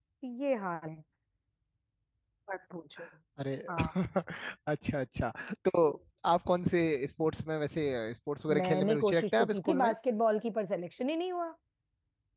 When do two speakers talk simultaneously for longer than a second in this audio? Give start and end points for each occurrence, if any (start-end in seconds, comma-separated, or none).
8.6-9.9